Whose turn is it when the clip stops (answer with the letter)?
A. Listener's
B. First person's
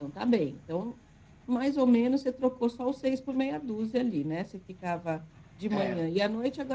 B